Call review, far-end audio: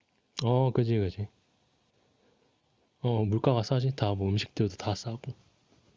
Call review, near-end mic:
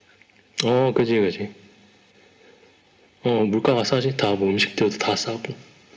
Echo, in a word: present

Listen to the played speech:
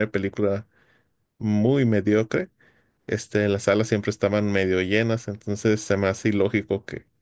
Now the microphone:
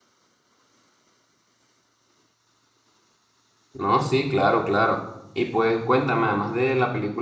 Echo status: none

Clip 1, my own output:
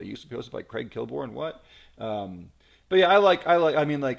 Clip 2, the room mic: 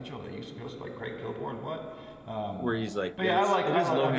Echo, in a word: present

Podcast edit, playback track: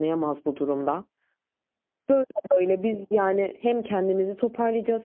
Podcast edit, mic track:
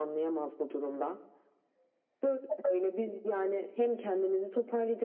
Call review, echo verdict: present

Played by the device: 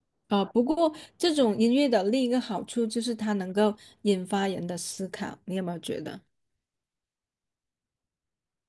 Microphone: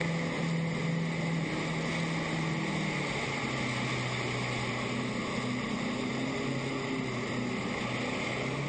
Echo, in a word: none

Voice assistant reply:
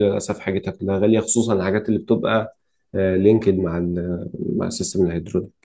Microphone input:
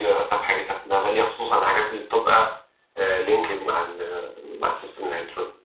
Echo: present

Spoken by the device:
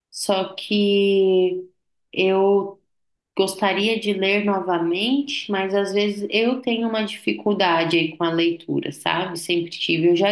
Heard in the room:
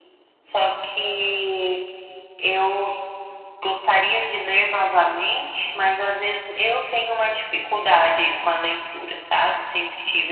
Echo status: present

